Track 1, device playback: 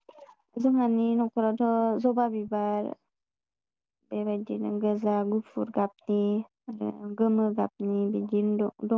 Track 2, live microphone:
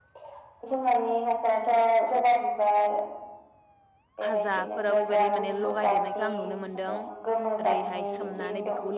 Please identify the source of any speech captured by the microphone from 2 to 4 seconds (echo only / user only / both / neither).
echo only